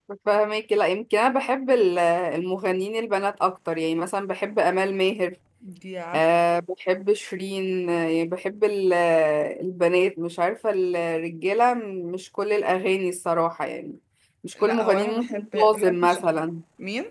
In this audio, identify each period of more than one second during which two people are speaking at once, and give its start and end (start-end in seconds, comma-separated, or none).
14.6-16.5